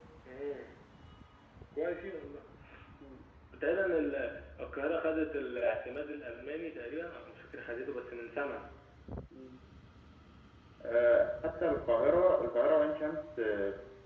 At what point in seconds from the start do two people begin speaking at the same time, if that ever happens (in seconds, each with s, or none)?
none